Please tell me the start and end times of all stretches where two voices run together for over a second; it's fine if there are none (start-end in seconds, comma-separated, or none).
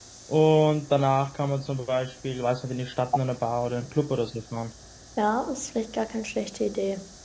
none